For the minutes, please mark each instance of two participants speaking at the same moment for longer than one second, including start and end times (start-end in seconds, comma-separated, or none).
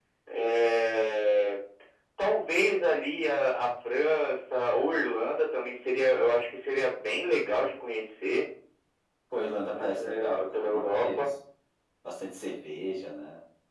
9.7-11.3